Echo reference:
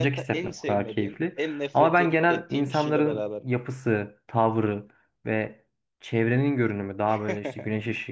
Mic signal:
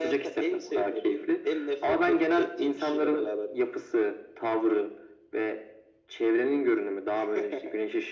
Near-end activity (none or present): none